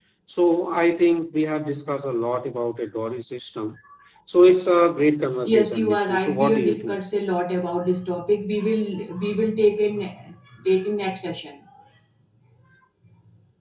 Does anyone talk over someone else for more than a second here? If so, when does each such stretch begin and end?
5.5-7.0

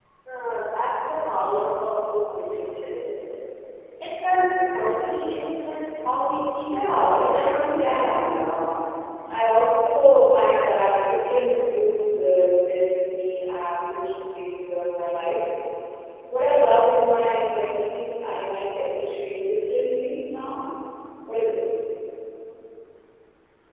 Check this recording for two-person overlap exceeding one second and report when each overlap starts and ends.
6.7-8.0

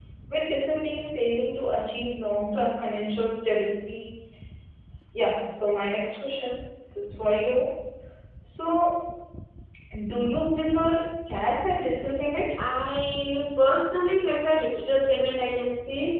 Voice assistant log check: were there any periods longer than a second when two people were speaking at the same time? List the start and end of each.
none

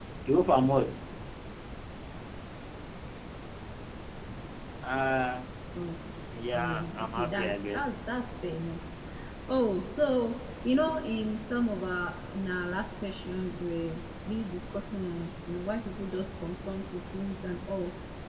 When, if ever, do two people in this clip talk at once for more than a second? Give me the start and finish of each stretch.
6.5-7.9

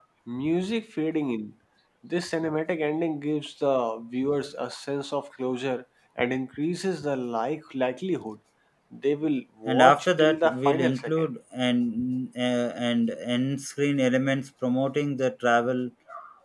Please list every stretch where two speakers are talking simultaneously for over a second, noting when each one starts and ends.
9.7-11.3

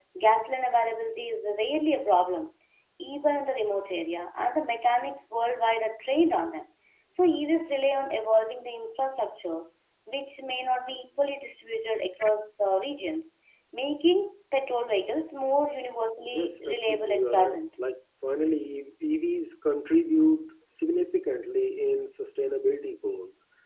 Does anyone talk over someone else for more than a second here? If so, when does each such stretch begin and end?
16.3-17.6

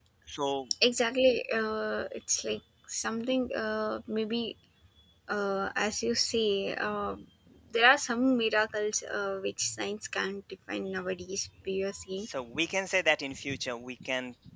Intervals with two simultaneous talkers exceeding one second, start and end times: none

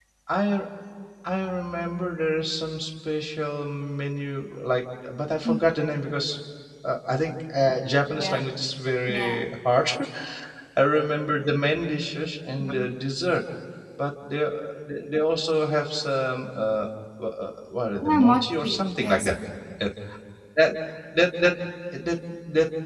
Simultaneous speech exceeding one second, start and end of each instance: 18.0-19.3

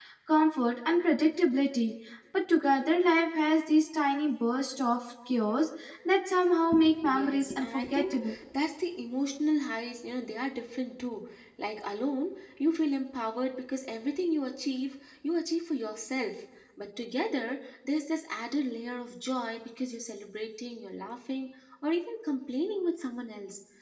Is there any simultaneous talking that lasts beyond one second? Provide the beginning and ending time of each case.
7.0-8.3

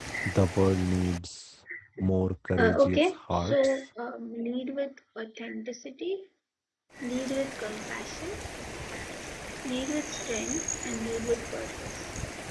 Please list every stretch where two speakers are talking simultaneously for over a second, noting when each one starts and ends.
2.6-3.8

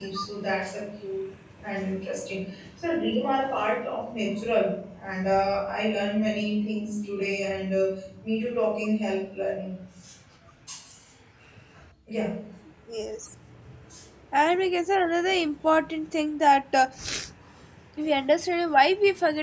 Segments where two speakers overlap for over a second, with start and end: none

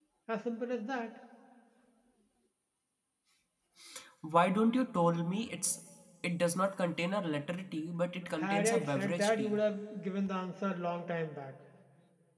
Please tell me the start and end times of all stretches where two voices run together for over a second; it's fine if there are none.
8.4-9.6

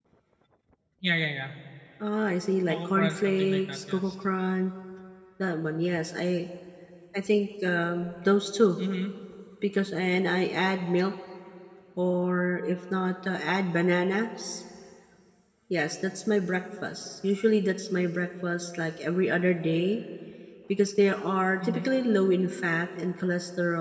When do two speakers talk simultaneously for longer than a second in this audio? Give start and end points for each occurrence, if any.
2.7-4.1

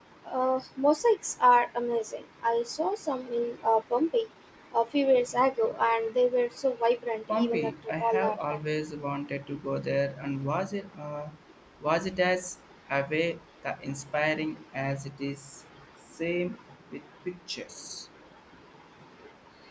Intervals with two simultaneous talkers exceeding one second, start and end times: 7.3-8.6

